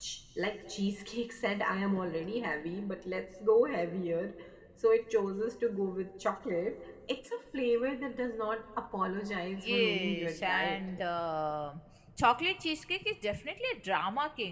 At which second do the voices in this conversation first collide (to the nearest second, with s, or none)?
10 s